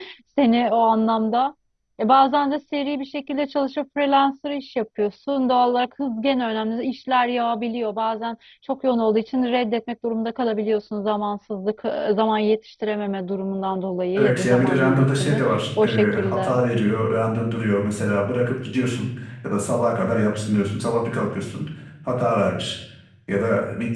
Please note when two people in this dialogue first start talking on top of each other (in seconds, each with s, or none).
14.2 s